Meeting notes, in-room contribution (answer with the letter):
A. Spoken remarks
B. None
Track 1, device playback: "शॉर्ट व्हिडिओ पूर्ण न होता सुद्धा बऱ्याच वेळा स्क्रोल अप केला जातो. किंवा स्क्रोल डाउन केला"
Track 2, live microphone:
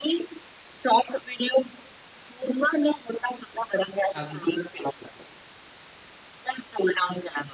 A